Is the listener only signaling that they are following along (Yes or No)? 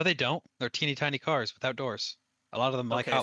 No